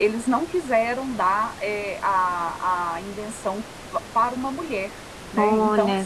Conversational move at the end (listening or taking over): taking over